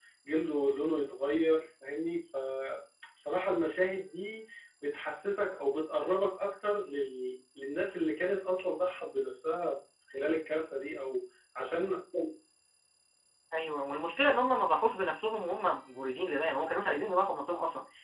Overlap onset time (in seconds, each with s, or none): none